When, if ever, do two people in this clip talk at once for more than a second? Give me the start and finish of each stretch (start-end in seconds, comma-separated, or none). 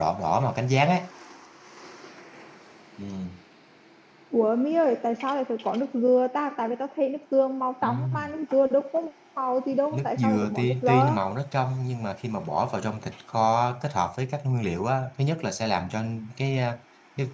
9.9-11.2